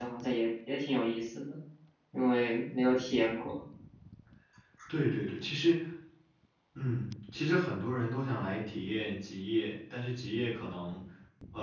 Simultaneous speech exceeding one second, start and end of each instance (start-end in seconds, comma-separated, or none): none